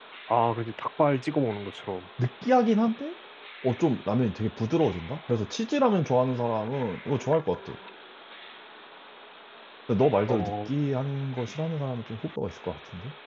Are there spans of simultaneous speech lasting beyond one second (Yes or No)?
No